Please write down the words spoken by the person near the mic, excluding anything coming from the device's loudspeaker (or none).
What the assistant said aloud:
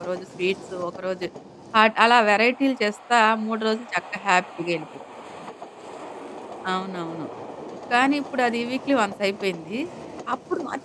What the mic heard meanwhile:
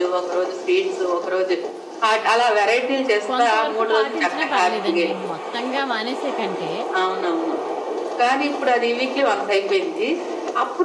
కొంతవరకు పాటించినా పర్లేదండి. మొత్తంగా మానేసే కంటే,